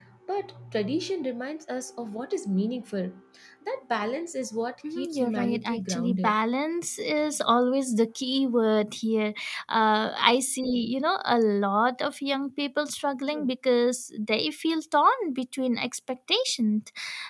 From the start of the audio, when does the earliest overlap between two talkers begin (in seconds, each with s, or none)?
4.8 s